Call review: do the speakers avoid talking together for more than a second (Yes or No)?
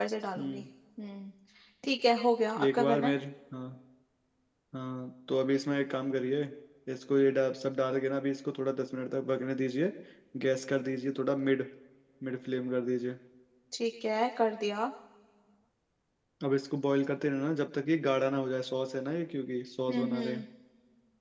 Yes